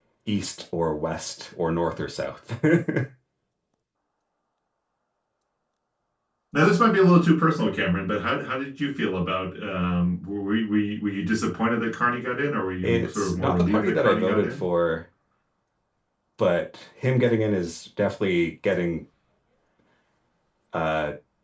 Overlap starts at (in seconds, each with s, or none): 12.8 s